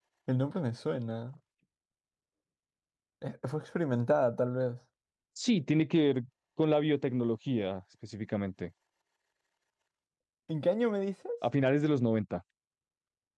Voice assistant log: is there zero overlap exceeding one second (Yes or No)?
Yes